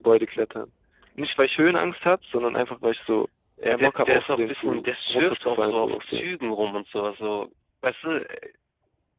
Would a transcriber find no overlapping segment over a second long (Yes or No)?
No